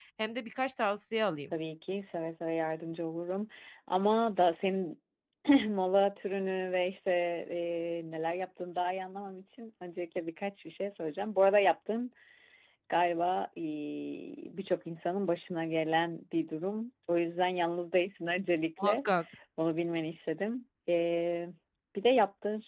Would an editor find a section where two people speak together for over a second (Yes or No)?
No